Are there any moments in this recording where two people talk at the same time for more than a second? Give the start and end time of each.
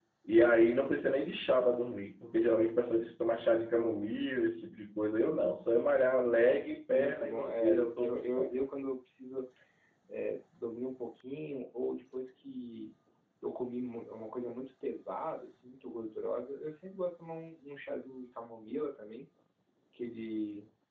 6.9-8.5

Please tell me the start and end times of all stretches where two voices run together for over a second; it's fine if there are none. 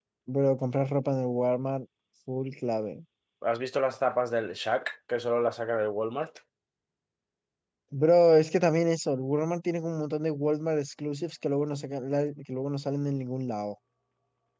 none

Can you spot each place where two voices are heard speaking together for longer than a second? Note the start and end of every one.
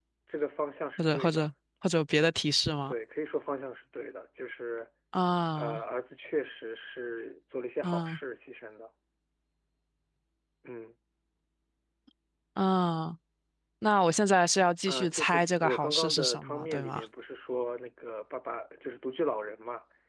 14.9-17.0

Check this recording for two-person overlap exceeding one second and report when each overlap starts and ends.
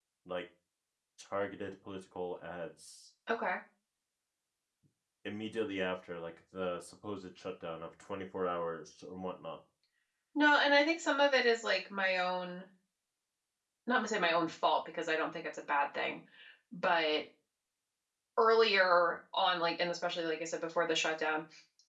none

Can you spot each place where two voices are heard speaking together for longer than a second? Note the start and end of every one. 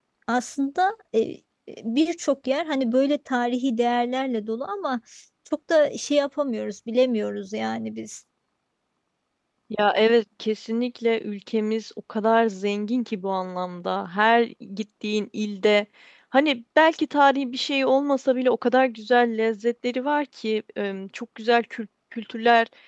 none

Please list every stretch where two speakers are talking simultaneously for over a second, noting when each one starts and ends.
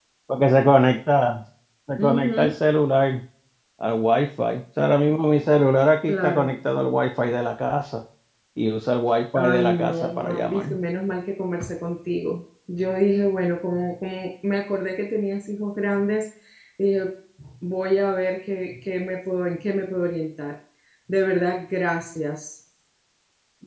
9.3-10.7

